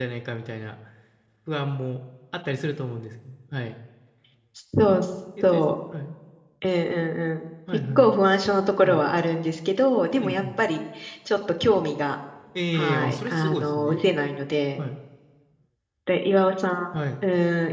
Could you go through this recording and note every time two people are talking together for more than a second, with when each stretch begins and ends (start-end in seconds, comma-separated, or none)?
12.7-14.0